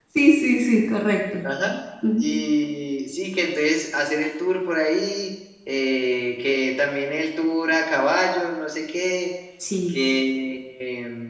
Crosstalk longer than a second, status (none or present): none